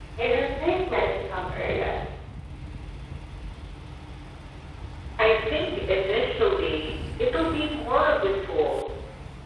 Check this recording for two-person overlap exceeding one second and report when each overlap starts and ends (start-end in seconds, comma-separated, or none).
none